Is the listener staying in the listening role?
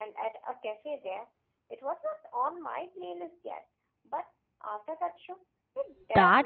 No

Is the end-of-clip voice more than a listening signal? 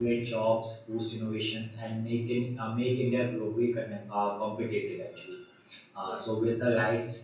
No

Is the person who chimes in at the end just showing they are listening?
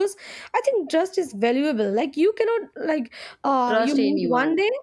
Yes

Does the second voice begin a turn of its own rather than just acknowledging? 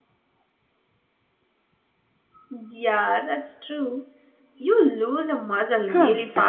Yes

